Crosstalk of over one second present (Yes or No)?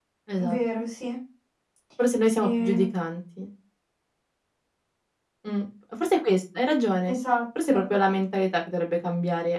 No